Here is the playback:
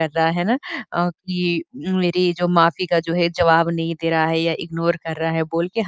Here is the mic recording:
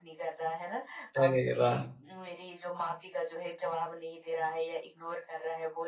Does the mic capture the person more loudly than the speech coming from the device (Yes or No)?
Yes